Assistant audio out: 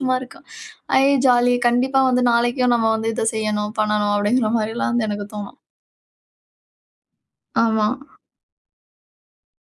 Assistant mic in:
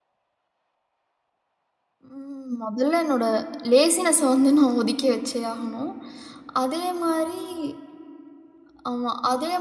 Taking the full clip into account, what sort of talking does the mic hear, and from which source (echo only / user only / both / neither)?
user only